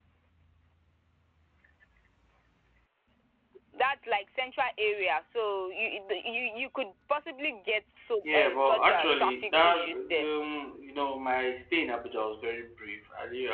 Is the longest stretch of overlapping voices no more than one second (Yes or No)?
No